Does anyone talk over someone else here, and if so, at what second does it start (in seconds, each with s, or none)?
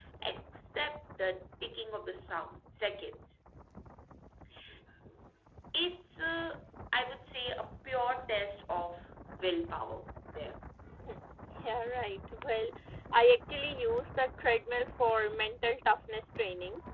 none